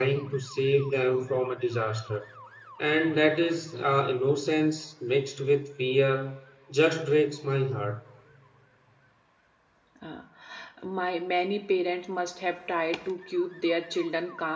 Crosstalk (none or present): none